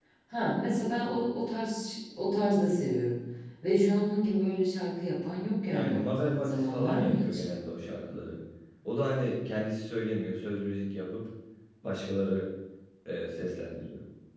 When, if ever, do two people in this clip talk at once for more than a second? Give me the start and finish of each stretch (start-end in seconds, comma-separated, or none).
5.7-7.4